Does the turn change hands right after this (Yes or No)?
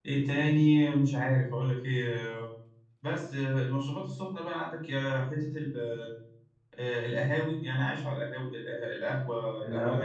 Yes